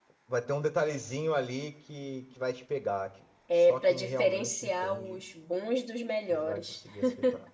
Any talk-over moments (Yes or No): Yes